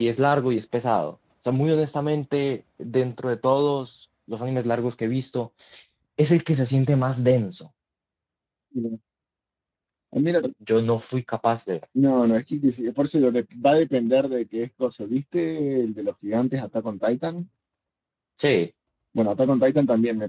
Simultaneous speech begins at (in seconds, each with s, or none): none